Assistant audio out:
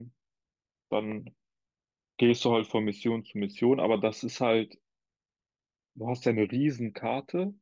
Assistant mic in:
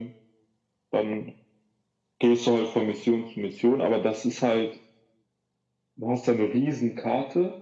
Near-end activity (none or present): none